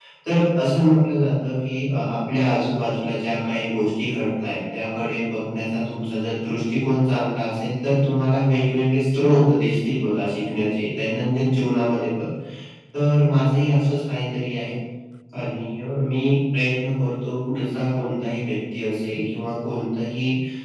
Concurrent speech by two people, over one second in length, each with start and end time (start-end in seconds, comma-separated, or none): none